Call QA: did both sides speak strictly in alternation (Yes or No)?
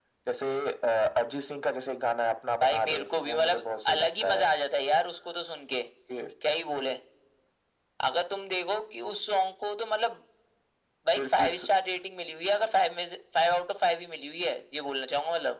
No